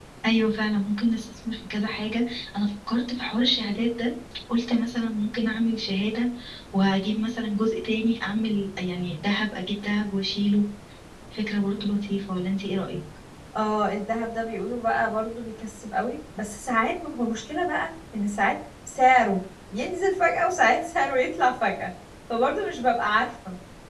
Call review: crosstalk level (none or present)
none